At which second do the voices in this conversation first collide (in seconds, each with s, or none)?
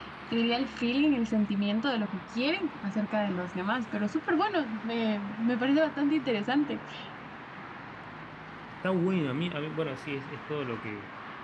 none